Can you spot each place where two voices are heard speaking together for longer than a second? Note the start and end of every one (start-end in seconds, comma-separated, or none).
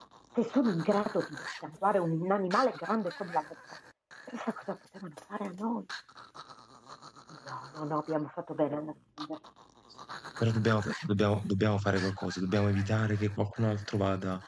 none